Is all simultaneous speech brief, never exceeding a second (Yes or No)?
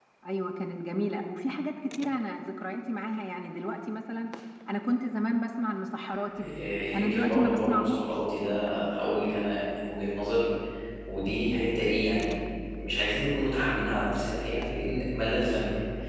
No